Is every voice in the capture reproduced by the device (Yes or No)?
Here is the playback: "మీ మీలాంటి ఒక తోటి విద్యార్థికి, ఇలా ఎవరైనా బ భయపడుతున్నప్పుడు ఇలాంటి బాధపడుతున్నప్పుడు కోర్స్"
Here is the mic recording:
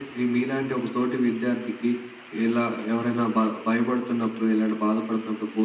Yes